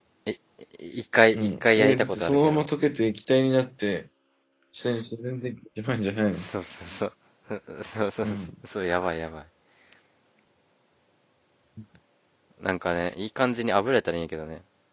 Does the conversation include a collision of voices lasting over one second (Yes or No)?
Yes